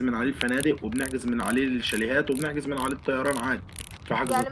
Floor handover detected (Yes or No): Yes